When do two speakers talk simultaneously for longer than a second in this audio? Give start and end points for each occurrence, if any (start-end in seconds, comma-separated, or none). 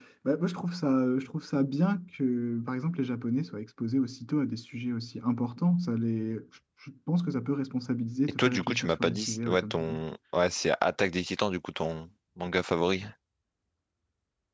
8.4-10.0